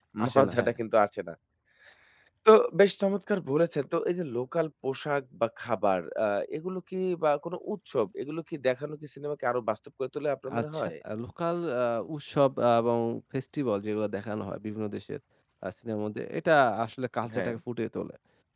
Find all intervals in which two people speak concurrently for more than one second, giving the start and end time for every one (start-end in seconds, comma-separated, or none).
none